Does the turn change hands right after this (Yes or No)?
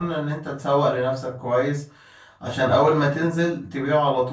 No